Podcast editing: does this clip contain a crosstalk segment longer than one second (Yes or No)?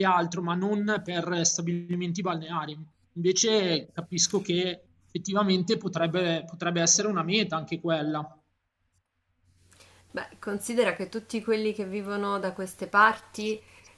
No